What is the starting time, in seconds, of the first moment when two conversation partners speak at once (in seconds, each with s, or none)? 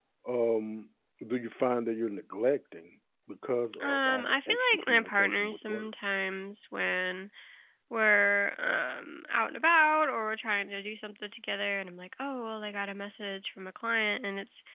3.7 s